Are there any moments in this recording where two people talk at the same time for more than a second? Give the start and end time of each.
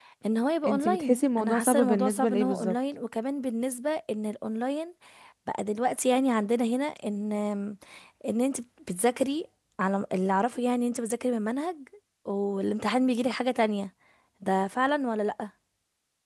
0.7-2.8

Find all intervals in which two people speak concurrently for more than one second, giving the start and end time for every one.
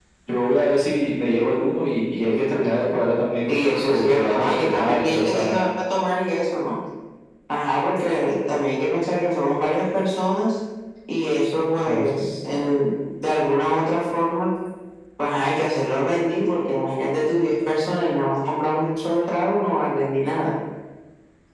3.5-5.6

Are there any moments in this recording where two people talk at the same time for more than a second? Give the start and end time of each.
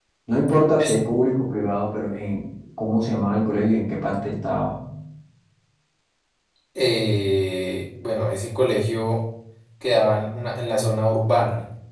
none

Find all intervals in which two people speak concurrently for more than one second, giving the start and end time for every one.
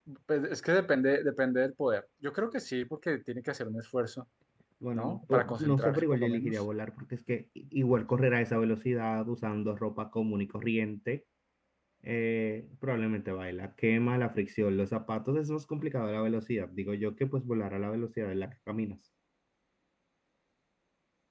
5.0-6.6

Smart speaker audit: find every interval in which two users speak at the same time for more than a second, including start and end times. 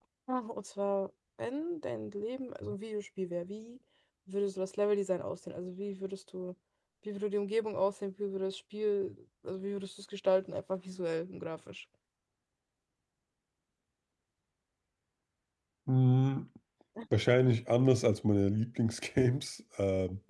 none

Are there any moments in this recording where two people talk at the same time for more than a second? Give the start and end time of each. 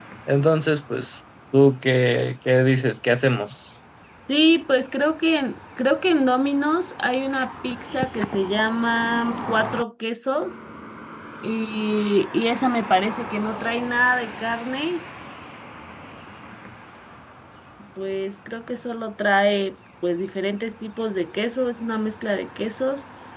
none

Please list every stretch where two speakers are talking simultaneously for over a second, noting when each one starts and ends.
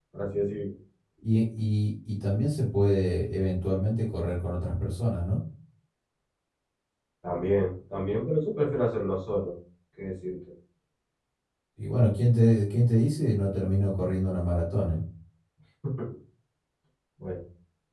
none

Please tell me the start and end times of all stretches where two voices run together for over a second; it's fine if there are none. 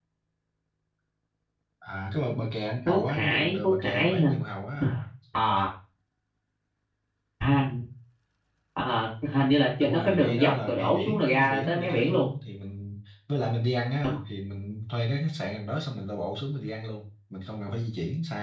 2.8-4.3, 9.8-12.3

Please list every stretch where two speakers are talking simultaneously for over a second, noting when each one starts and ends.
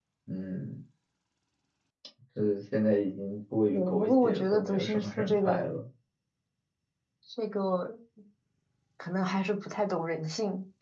3.7-5.7

